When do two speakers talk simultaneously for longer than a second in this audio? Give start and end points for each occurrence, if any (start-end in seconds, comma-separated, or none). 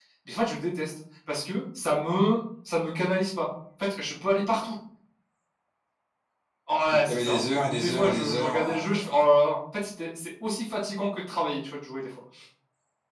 6.9-9.1